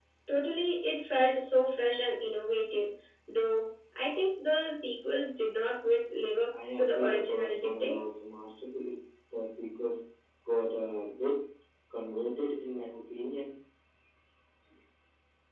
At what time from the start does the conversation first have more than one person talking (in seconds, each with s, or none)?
6.8 s